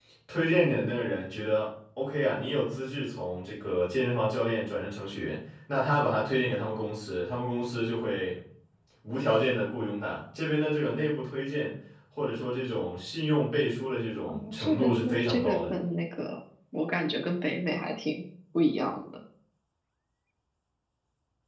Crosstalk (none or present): present